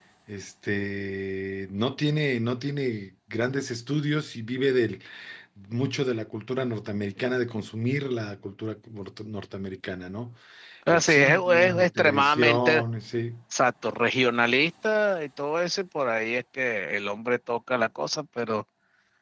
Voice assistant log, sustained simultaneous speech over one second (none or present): present